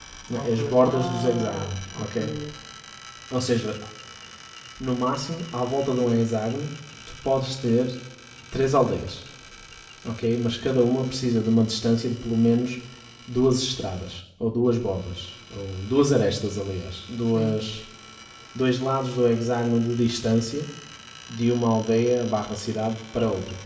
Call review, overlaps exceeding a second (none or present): present